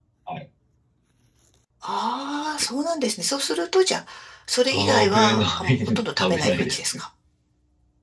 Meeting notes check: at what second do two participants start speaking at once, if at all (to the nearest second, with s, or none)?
5 s